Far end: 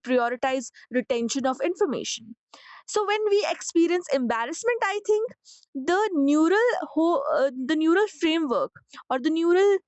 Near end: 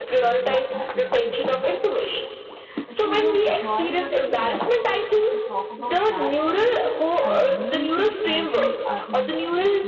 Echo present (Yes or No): Yes